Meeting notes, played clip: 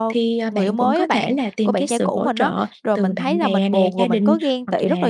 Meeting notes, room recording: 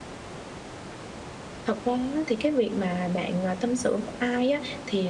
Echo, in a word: none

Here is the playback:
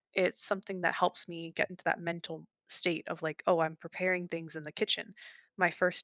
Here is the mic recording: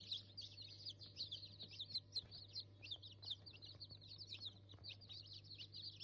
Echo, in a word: none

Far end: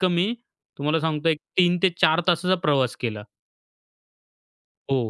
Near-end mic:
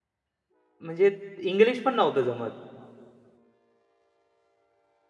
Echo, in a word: none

